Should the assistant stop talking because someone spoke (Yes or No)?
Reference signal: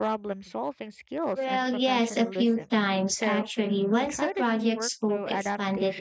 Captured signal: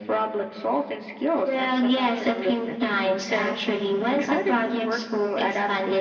No